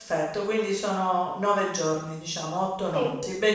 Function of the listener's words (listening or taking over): listening